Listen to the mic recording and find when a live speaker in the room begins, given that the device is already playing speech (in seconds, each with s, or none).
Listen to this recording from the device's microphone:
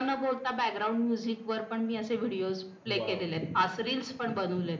2.9 s